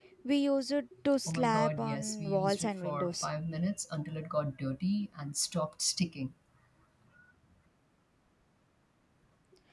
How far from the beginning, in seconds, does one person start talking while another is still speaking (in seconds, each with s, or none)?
1.3 s